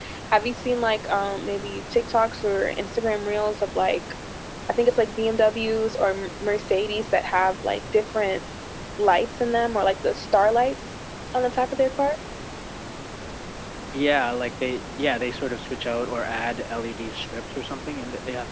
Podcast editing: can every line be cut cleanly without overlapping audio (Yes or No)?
Yes